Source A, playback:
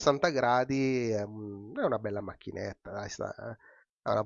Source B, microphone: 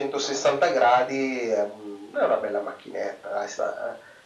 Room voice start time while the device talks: none

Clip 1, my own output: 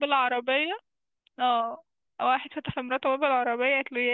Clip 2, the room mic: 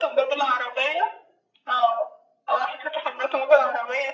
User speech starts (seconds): none

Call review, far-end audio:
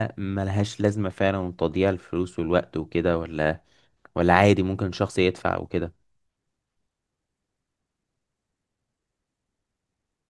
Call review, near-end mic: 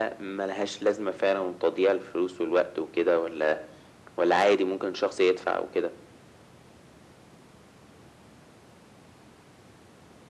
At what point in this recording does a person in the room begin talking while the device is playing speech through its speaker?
none

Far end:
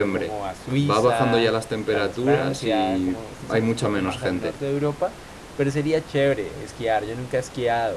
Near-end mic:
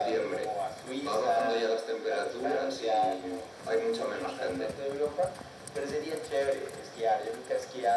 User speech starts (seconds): none

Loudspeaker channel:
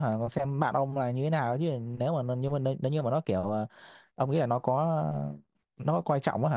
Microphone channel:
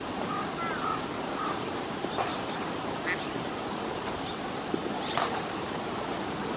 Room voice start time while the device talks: none

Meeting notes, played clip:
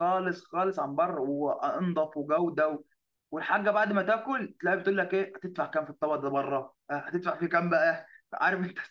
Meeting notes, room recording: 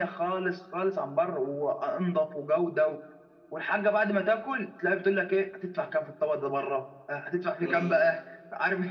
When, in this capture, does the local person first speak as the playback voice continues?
8 s

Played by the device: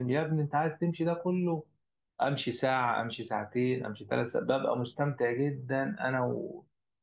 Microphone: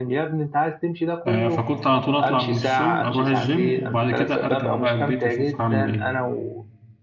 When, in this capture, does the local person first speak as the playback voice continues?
1 s

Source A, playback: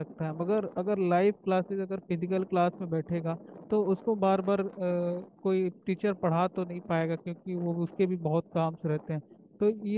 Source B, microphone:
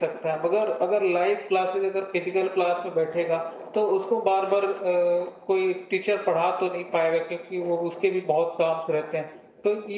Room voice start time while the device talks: none

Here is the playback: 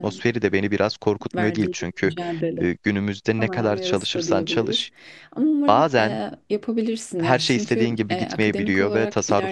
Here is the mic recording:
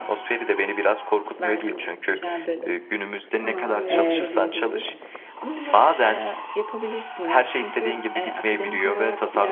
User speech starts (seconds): 4 s

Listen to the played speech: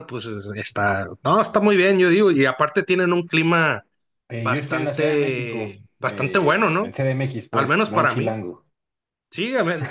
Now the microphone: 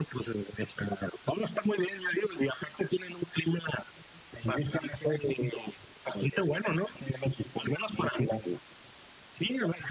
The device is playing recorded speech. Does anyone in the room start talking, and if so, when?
none

